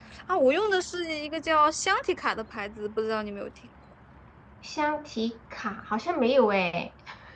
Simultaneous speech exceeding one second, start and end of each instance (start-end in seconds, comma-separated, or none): none